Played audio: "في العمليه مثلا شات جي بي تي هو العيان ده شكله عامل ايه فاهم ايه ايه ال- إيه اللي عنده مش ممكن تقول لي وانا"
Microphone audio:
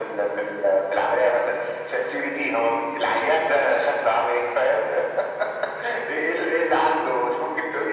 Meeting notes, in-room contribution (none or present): none